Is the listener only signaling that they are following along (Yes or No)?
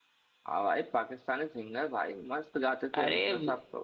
No